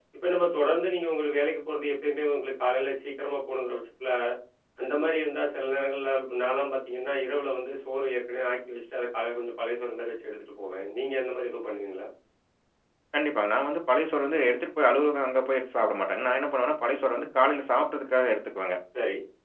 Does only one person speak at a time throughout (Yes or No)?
Yes